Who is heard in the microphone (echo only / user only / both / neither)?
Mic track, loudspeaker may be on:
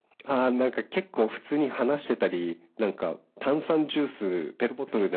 echo only